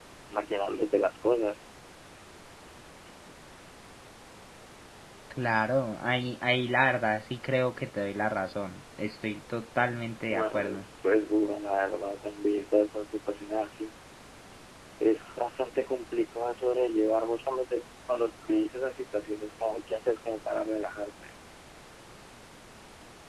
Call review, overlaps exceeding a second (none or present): none